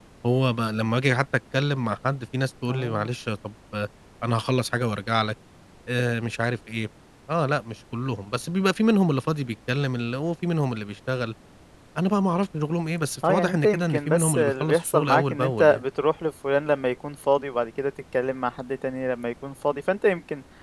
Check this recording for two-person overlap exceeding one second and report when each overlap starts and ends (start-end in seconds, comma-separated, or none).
13.2-15.8